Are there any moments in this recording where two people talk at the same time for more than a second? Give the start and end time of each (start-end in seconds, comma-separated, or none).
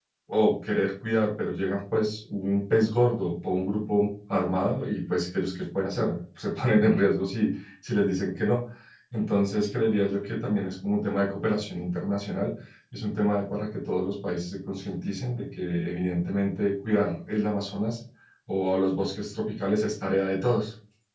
none